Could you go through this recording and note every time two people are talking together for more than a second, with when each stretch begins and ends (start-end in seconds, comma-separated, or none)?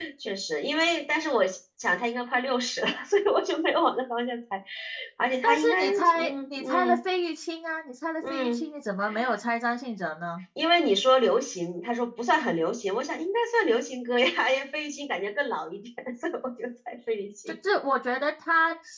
5.4-7.0